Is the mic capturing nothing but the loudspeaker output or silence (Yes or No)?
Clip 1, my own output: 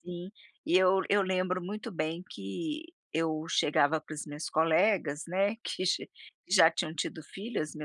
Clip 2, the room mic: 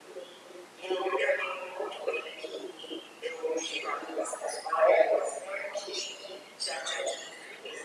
Yes